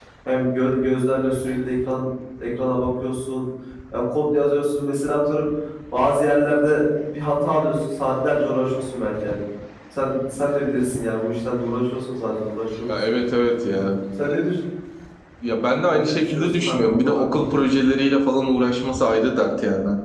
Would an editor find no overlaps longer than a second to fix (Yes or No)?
No